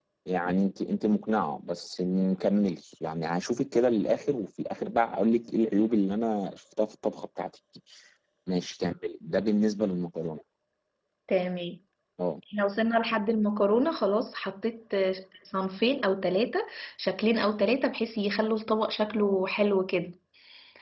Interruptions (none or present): none